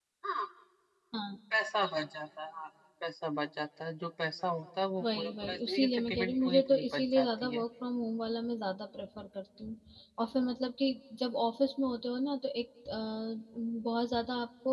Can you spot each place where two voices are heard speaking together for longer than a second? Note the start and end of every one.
5.0-7.6

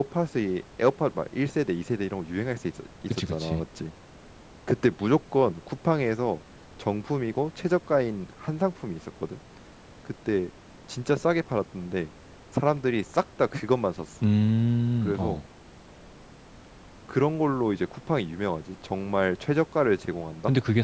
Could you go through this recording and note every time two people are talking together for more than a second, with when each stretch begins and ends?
none

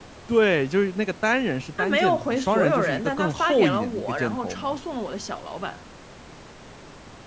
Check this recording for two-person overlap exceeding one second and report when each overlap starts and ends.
1.8-4.8

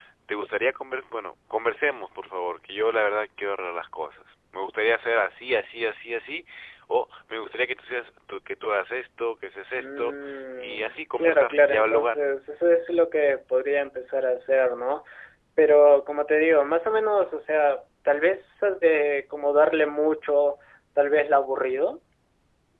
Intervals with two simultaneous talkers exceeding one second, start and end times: 10.6-12.1

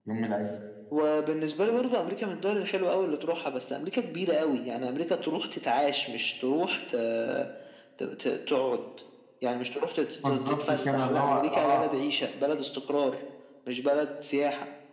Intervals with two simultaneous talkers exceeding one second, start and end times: 10.2-11.8

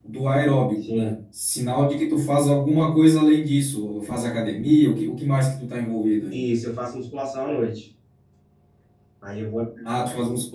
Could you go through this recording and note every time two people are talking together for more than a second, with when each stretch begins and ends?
none

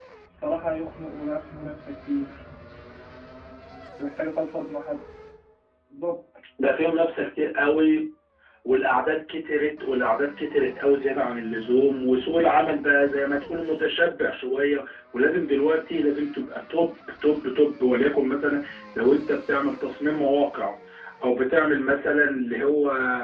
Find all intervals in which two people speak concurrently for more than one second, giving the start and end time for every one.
none

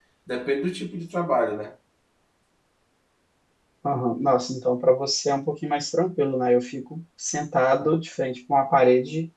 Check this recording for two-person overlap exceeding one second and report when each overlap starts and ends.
none

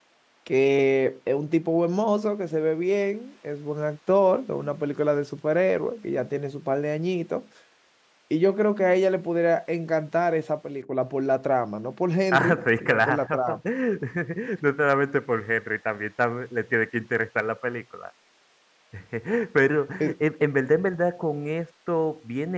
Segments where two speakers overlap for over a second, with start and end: 12.3-13.6

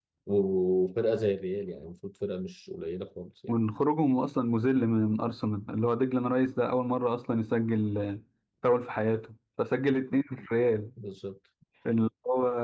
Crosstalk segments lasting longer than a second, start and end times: none

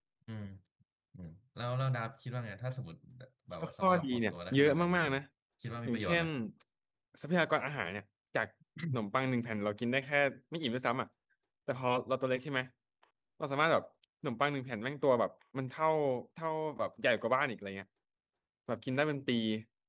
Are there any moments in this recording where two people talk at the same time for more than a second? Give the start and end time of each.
3.6-5.2

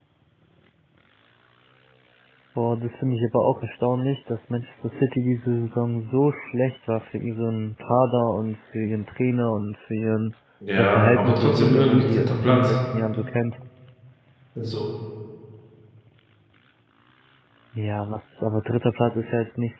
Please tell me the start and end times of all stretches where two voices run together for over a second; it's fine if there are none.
10.8-12.8

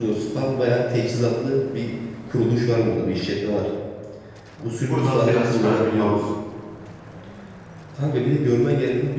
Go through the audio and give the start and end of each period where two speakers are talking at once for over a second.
4.8-6.2

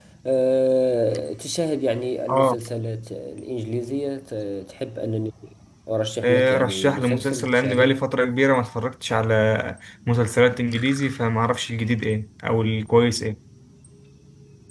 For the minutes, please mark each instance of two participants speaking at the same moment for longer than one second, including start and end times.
6.2-8.0

